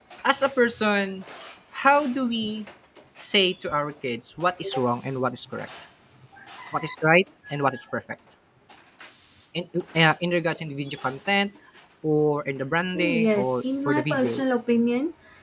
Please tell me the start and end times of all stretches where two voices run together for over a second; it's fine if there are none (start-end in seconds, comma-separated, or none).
12.9-14.4